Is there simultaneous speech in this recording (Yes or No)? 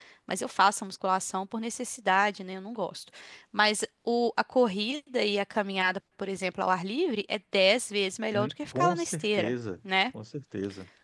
Yes